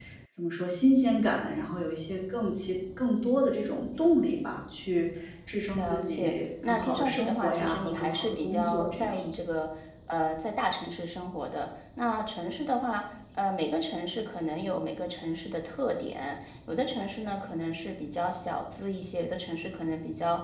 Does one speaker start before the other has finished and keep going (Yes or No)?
Yes